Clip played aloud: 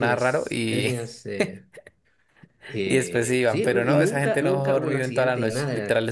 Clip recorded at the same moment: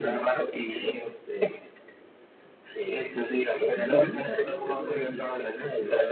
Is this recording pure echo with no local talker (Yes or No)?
Yes